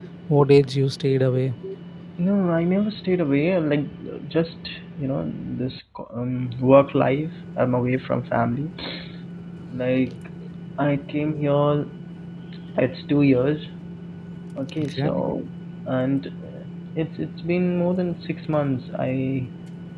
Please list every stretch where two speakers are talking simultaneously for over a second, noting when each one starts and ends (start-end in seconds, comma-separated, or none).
none